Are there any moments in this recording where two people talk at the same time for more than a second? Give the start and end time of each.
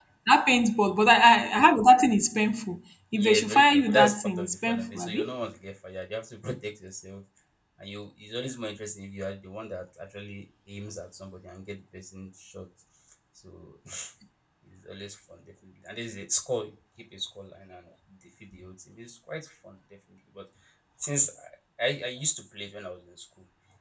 3.2-5.3

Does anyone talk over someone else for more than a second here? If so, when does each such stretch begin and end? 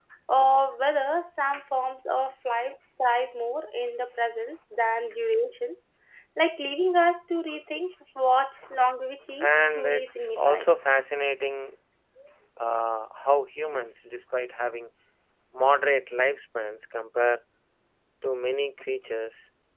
9.4-10.7

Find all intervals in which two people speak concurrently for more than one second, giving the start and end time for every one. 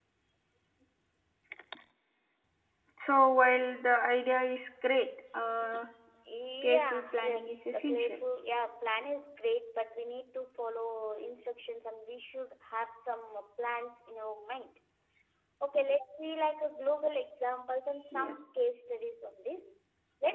6.6-8.2

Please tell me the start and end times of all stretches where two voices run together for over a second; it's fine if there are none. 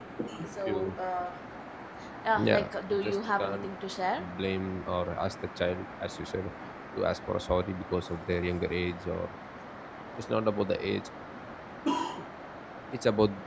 2.4-3.7

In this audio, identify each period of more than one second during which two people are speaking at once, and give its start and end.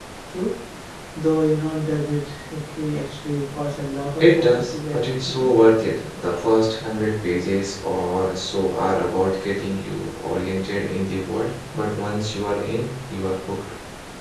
4.2-5.5

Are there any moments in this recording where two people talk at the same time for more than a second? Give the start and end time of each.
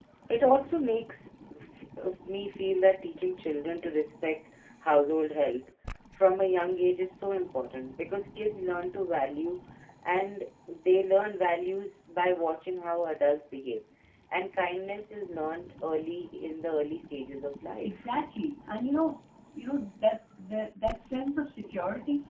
none

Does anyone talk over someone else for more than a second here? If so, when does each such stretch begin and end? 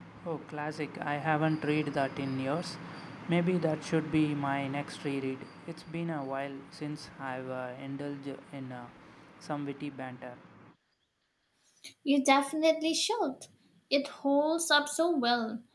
none

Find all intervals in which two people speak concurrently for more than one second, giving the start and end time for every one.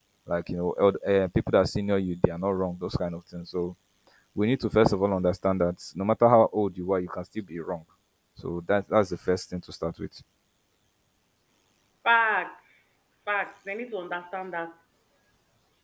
none

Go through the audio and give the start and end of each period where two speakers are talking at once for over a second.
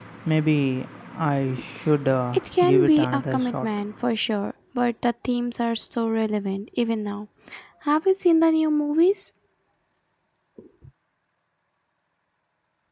2.3-3.7

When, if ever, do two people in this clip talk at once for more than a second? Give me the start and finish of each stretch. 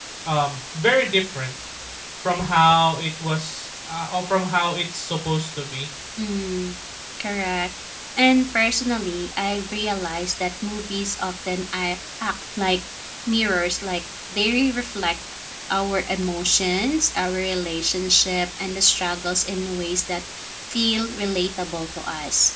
none

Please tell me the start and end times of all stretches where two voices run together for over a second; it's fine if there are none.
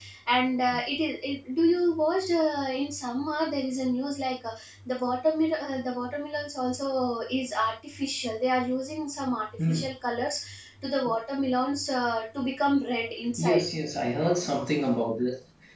none

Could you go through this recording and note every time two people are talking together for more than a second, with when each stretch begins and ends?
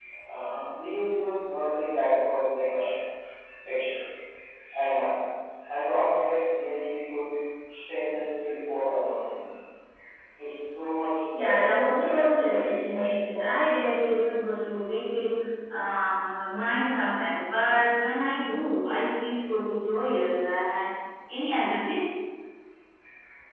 11.3-13.7

